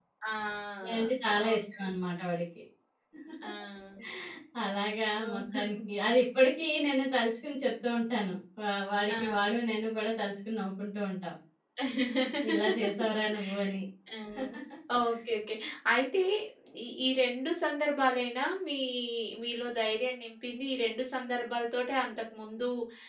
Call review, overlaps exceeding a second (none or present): none